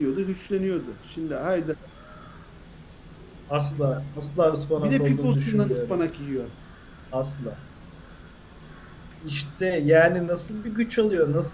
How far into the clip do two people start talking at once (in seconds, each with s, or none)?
4.4 s